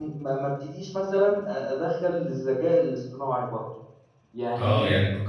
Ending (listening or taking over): taking over